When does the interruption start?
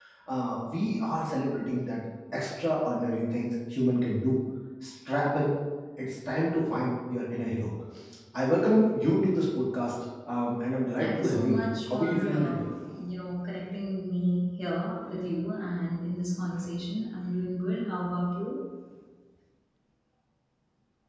11.0 s

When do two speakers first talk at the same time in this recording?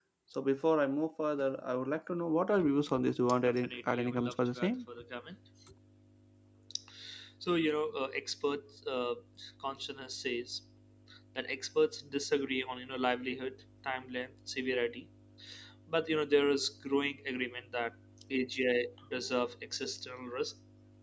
3.4 s

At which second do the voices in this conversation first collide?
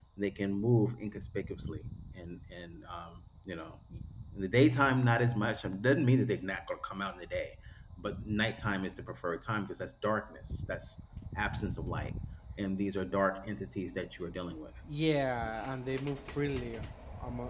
none

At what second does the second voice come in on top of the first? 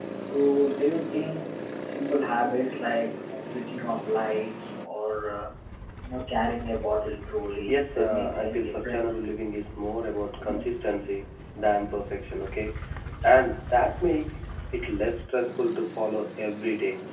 7.7 s

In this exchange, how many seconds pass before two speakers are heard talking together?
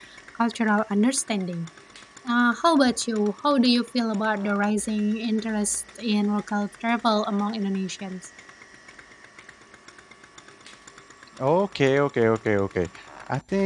none

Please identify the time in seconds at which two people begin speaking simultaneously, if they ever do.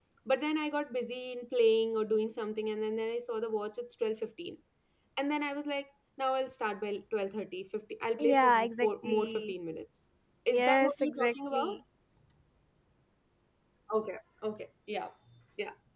8.2 s

